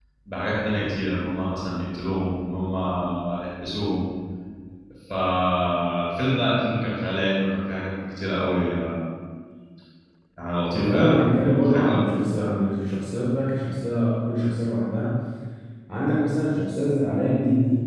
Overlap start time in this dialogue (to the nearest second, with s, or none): 11 s